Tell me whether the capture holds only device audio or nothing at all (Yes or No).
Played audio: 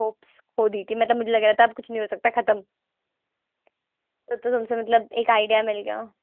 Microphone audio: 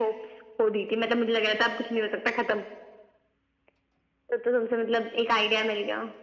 Yes